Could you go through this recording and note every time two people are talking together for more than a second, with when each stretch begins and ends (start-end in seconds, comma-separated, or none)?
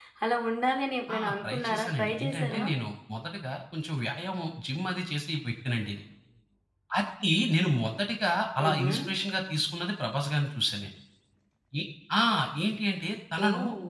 1.2-2.6